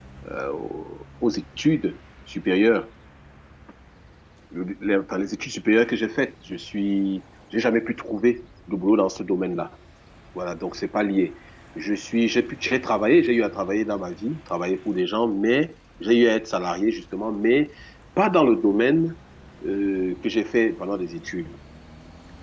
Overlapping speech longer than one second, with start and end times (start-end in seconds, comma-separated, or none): none